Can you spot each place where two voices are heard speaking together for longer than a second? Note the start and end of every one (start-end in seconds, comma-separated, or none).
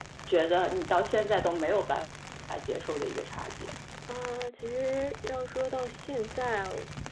none